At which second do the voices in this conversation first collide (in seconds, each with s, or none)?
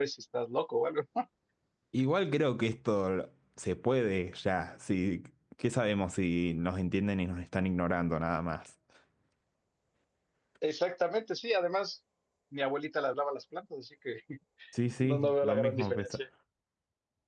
15.0 s